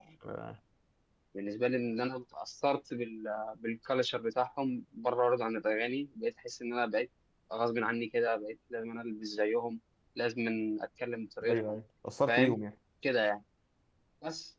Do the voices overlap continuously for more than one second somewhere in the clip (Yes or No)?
No